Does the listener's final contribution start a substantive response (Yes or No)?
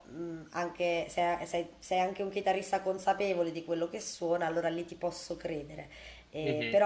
No